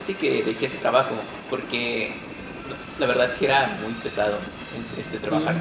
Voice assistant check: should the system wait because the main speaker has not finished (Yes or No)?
Yes